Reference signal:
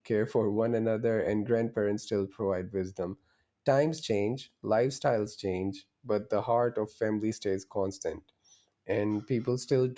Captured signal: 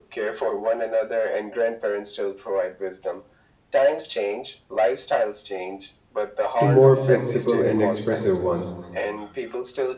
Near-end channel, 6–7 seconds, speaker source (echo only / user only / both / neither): both